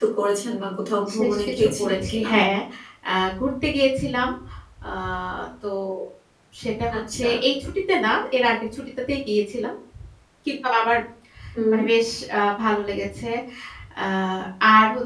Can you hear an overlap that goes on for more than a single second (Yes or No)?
Yes